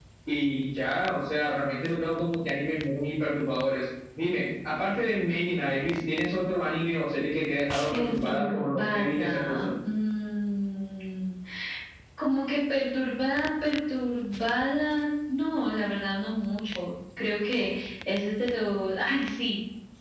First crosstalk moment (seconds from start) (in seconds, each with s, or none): 7.9 s